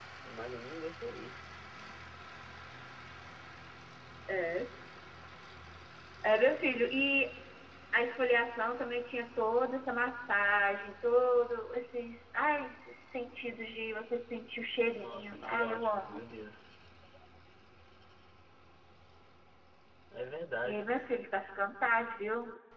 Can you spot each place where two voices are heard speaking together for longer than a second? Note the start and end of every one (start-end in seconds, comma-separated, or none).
14.9-16.2